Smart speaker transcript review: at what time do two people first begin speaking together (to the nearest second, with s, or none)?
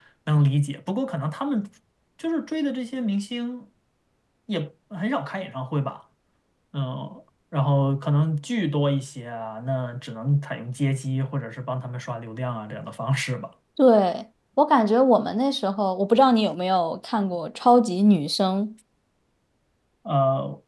none